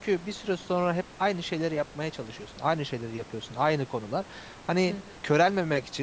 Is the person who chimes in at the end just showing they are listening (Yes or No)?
Yes